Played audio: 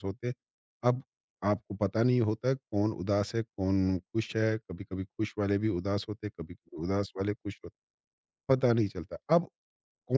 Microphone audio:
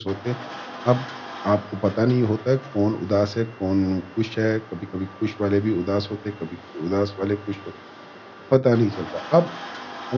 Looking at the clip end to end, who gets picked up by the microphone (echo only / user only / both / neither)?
echo only